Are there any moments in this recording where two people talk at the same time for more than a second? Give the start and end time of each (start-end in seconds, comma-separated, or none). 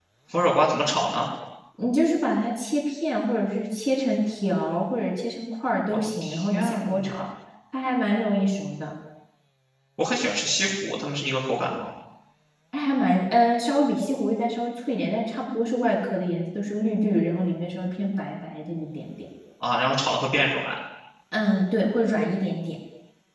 5.9-7.2